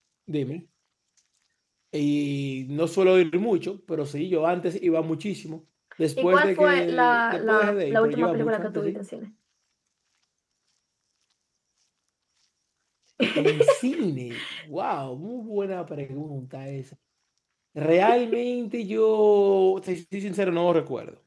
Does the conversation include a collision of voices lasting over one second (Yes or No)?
Yes